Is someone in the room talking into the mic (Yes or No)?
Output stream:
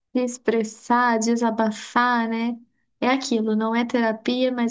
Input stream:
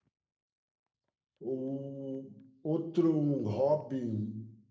Yes